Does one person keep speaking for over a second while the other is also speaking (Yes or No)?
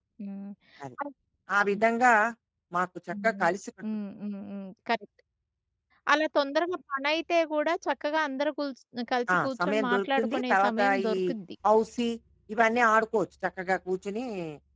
Yes